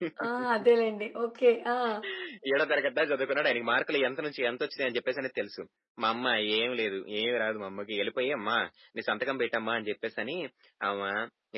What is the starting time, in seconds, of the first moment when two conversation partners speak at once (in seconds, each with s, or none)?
none